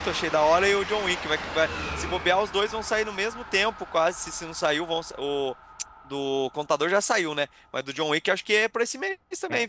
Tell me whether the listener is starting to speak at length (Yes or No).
Yes